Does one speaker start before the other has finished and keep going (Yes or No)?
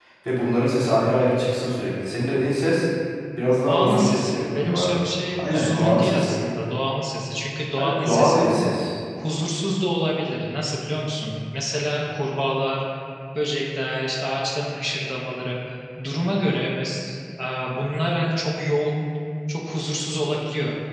Yes